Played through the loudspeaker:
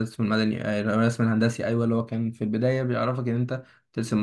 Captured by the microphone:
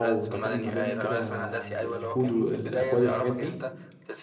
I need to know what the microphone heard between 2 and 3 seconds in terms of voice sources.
both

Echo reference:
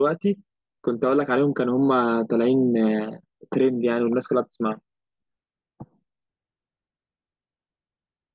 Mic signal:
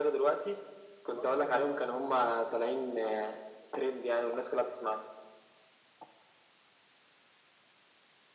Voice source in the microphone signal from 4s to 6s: echo only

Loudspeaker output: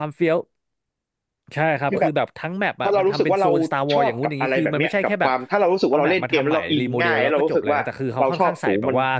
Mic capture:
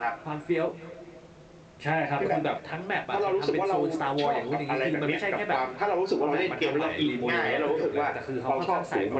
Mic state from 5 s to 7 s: echo only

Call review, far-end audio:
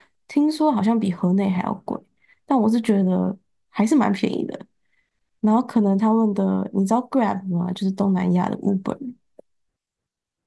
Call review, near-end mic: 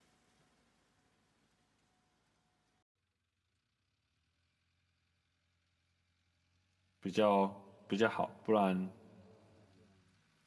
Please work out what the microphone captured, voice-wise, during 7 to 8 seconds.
user only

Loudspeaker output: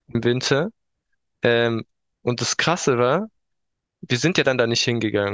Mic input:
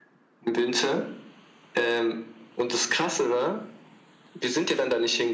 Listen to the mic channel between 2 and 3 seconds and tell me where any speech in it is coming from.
echo only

